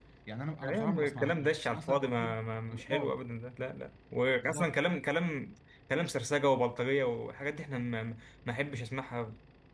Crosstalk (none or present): present